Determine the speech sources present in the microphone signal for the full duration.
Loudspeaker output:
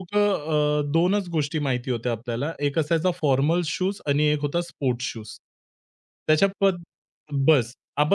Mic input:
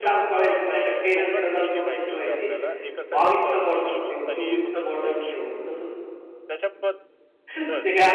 both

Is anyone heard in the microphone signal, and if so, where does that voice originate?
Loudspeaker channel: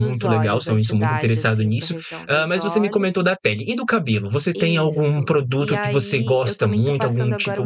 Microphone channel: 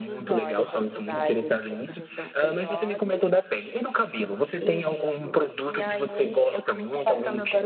echo only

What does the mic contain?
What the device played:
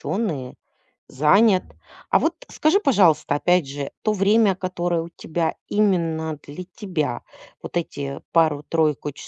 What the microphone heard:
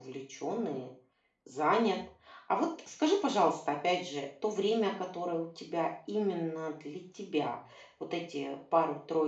echo only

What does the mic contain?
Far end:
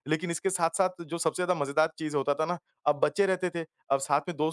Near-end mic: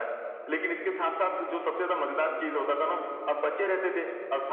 echo only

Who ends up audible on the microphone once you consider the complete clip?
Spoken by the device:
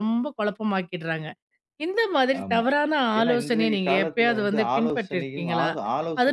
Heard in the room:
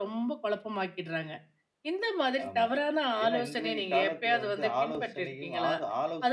echo only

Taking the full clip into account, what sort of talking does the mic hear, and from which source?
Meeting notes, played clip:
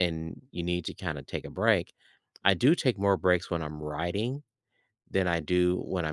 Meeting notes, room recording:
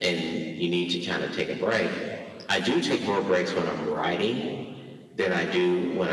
echo only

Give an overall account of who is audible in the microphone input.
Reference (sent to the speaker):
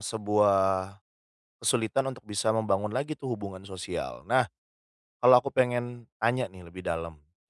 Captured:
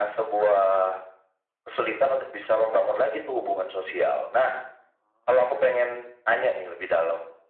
echo only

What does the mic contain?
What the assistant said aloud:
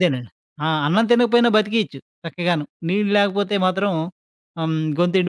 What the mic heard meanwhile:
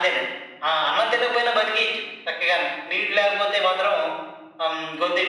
echo only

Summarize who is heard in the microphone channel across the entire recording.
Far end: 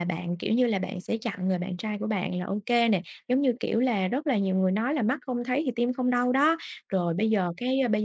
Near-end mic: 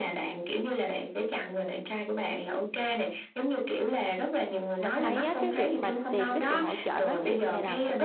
both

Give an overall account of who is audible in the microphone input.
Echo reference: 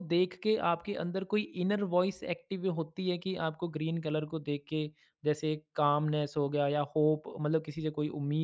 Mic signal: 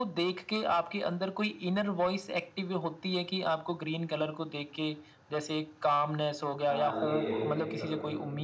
both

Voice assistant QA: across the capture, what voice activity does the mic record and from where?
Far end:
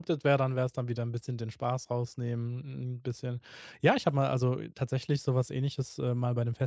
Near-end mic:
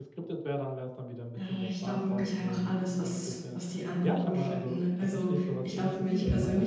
both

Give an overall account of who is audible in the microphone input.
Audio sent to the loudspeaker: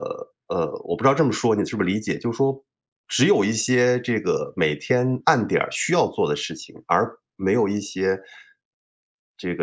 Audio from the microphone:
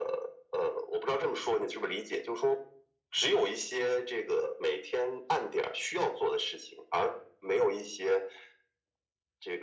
echo only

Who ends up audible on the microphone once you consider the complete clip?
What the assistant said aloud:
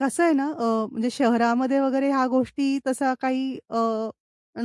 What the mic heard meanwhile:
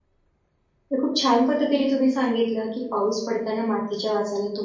user only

